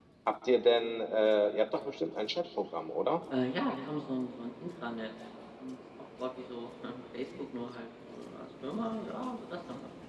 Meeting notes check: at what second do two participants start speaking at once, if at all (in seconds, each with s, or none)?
none